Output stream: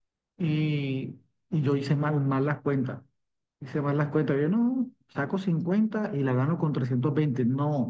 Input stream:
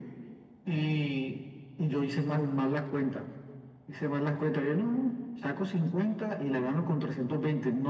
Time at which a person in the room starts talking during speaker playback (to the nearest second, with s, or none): none